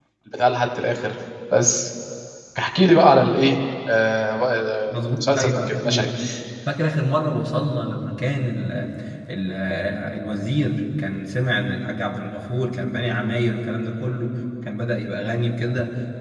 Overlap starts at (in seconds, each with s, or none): 4.9 s